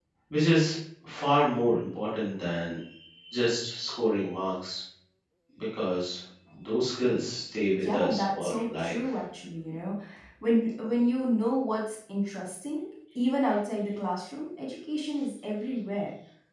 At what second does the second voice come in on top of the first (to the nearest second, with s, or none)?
8 s